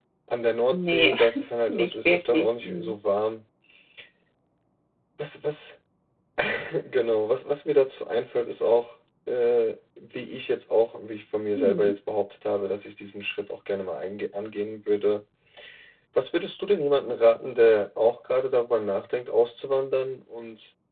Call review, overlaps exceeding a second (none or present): present